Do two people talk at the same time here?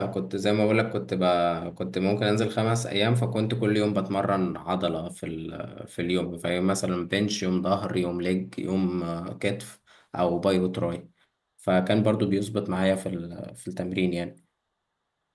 No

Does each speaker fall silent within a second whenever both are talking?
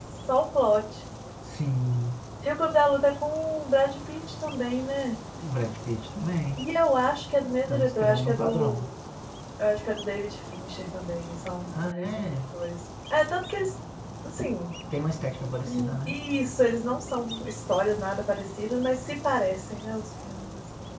No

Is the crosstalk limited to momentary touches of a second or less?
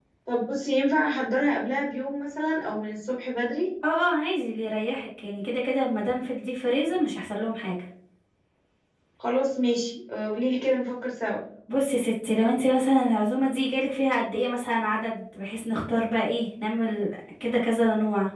Yes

